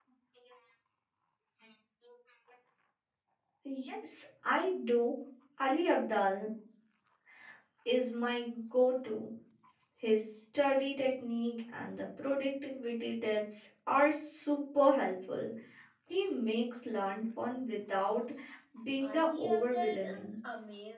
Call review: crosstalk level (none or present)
present